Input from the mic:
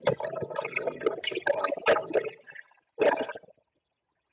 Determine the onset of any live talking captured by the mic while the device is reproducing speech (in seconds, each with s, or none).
none